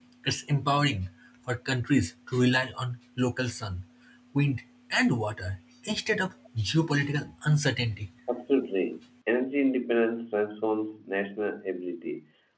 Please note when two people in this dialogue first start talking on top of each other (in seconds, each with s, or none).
none